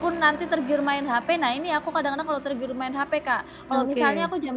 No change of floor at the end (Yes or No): Yes